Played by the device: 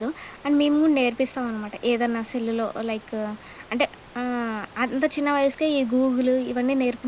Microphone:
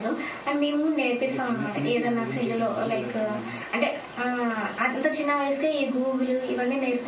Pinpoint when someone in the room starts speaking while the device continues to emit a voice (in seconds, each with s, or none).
1.2 s